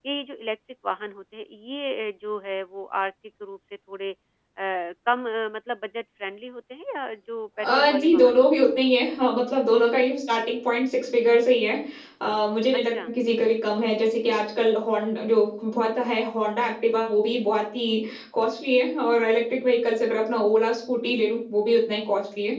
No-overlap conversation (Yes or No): No